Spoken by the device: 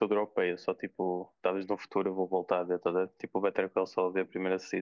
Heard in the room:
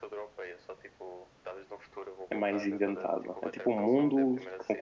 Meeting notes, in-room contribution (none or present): present